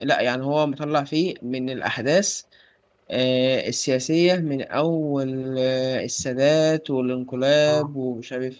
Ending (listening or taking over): listening